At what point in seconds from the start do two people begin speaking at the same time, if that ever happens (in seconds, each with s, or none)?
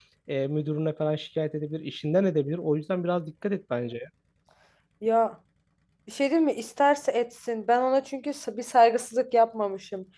none